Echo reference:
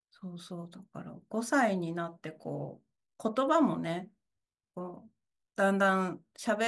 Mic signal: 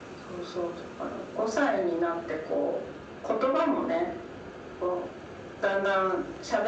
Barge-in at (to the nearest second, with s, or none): none